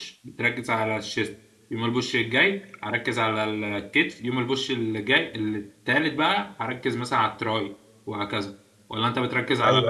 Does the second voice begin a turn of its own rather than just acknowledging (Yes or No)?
Yes